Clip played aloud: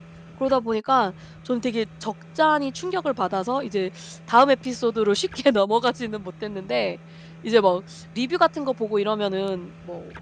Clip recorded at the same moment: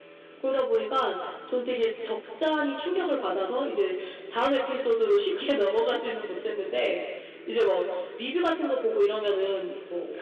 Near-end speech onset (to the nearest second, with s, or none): none